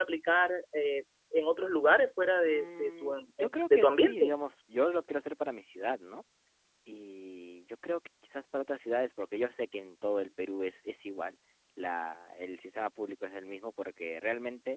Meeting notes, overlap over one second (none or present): present